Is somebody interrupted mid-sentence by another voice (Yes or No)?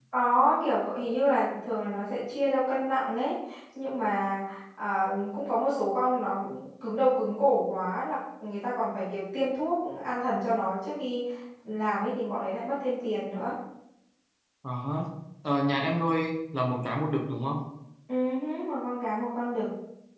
No